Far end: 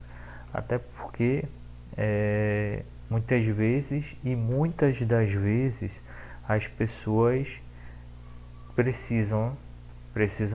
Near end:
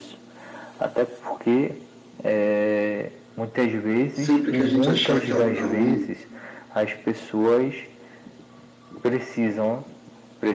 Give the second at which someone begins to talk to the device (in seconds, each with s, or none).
4.1 s